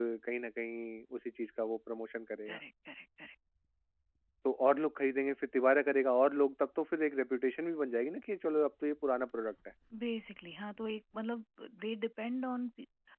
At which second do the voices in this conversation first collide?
none

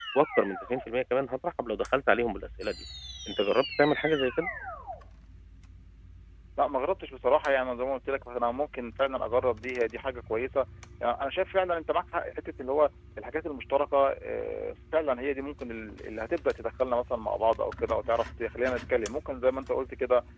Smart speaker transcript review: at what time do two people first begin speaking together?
none

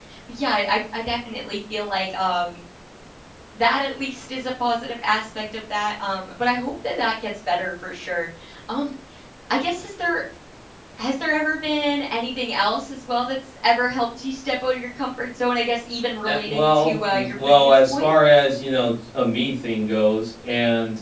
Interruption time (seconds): 16.2 s

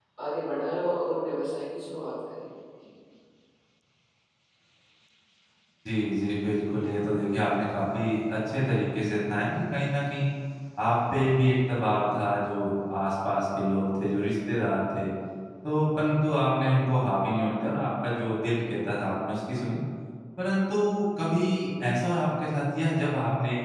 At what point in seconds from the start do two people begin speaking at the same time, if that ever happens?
none

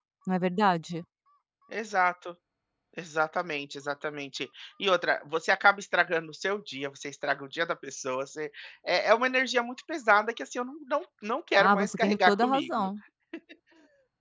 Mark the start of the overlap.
11.6 s

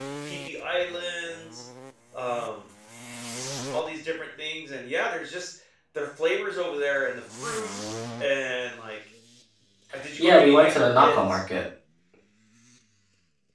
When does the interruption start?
10.2 s

